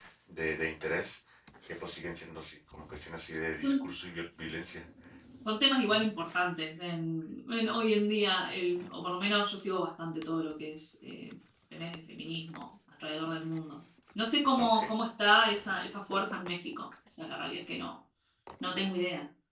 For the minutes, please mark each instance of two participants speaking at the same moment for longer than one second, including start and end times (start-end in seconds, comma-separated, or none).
none